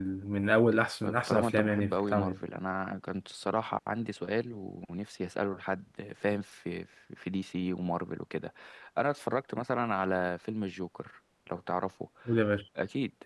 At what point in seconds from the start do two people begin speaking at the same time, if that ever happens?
1 s

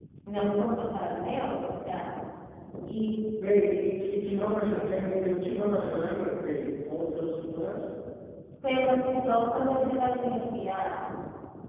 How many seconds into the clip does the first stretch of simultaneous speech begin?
none

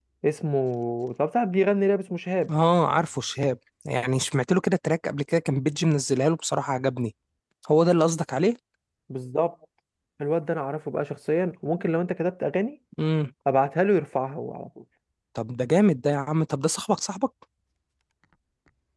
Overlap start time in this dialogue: none

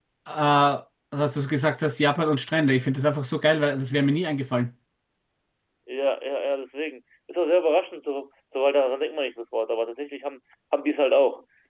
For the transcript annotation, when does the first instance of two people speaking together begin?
none

